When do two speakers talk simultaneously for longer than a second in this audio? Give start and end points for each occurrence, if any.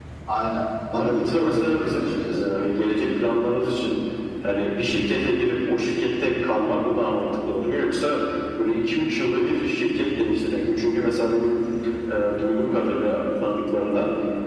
0.9-2.3

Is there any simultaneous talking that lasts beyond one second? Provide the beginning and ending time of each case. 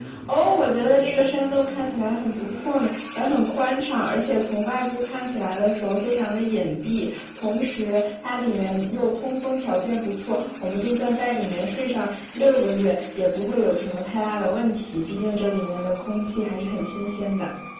none

